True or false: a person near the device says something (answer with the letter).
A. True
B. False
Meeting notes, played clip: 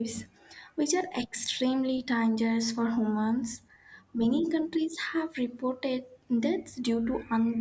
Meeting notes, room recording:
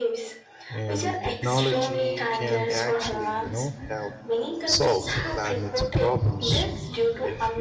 A